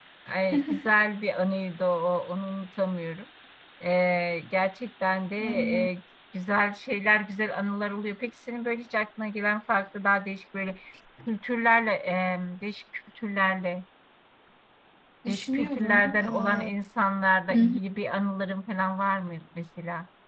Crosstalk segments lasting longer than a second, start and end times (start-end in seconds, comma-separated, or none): 15.3-16.6